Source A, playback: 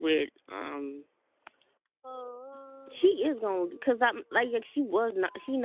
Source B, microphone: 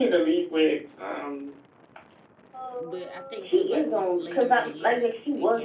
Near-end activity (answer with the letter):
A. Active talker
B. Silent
A